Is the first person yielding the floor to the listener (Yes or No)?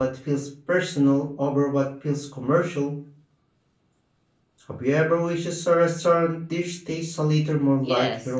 Yes